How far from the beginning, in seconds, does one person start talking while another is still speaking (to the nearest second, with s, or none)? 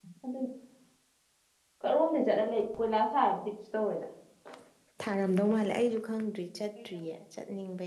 none